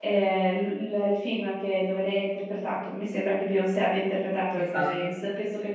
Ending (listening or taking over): listening